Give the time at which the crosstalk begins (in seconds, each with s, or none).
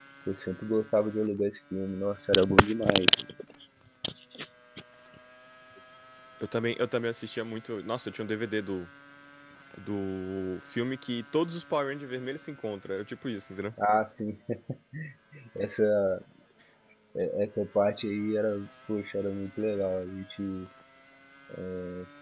none